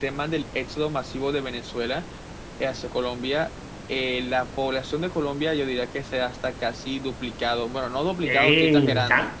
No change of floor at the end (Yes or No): No